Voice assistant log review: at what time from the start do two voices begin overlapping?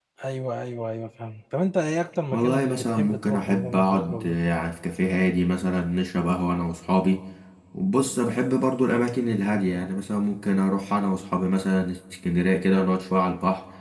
2 s

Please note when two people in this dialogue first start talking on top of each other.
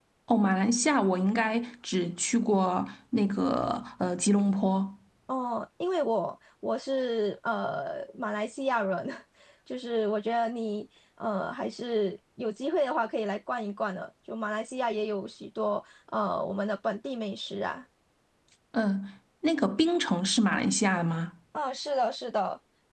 none

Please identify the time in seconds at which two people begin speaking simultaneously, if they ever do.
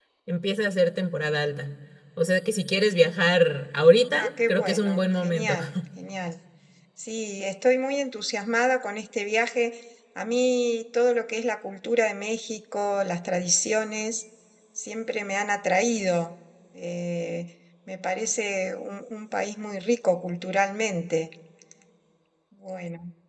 4 s

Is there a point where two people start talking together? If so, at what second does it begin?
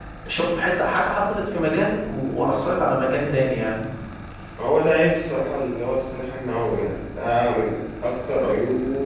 none

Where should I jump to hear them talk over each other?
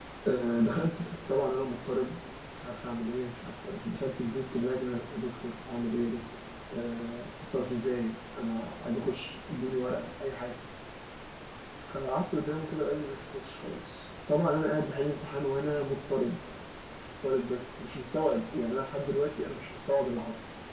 none

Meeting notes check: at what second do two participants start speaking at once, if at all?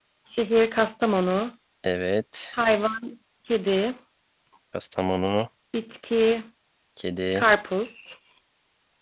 none

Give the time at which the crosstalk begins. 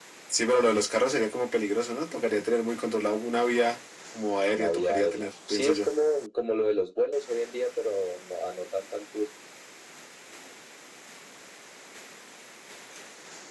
5 s

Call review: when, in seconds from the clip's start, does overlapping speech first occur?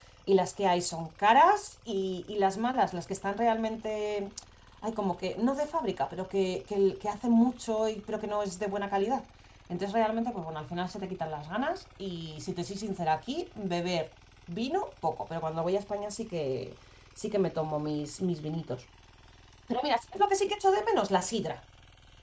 none

